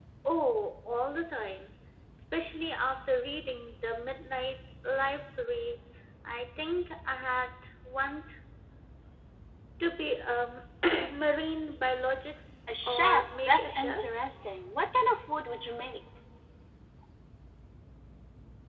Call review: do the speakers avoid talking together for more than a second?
No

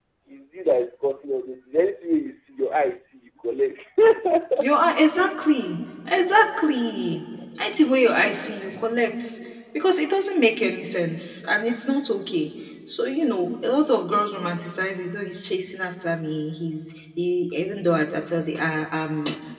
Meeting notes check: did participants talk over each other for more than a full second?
No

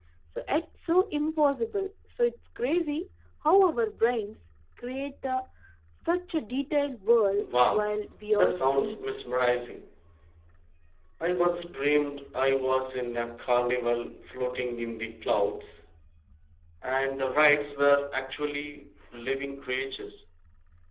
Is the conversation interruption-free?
No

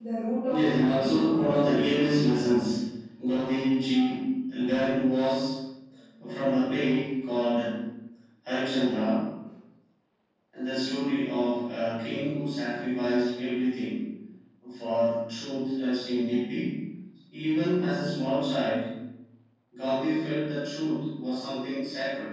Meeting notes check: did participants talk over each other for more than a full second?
Yes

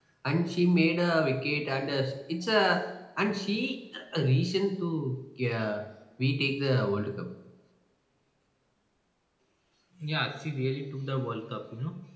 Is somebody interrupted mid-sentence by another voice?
No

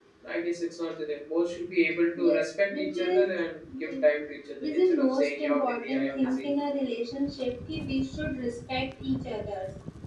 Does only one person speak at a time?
No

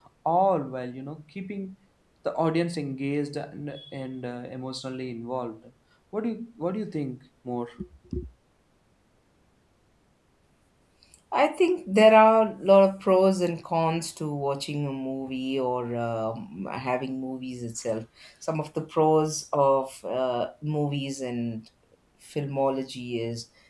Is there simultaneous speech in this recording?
No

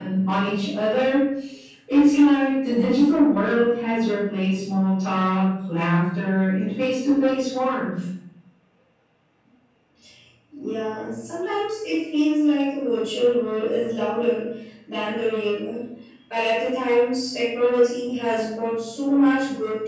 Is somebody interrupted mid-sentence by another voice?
No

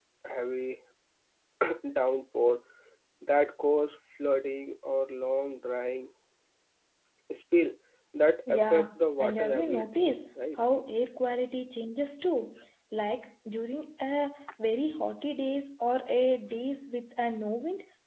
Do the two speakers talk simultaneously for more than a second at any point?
Yes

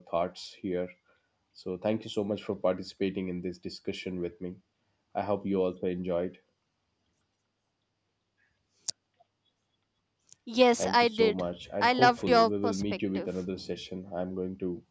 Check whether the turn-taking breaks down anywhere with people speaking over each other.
Yes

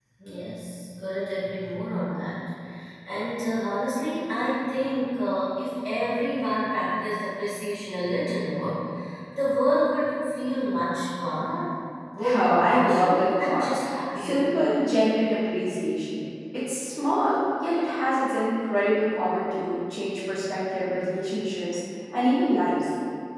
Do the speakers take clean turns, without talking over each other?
No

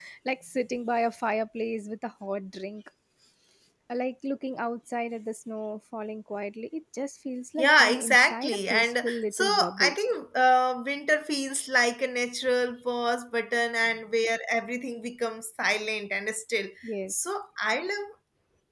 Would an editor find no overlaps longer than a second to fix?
No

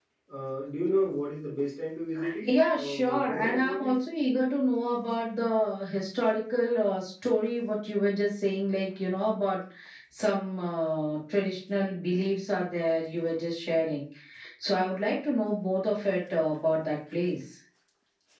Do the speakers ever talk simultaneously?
Yes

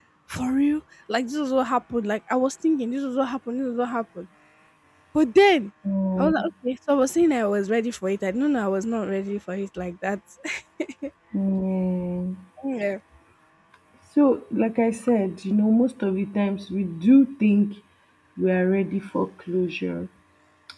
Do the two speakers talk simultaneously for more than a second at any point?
No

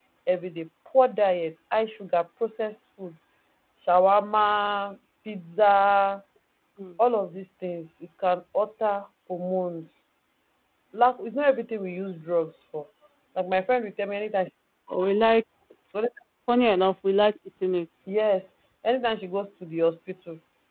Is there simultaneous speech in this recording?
No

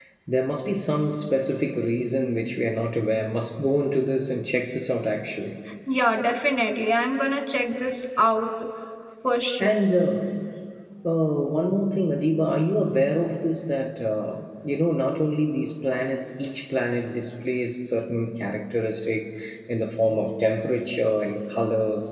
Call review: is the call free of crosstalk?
Yes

